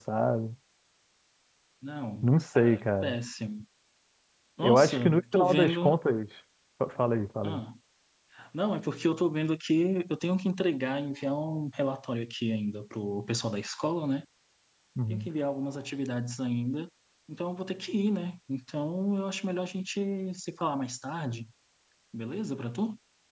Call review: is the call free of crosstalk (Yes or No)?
No